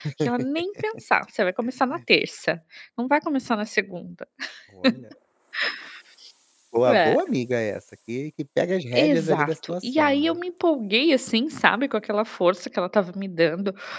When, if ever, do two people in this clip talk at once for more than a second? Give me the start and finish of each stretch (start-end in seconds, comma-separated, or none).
9.0-10.4